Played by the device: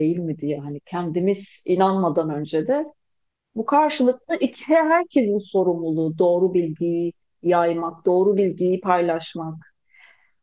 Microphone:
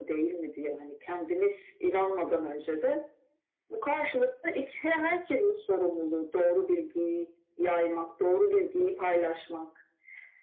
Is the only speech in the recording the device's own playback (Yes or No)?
Yes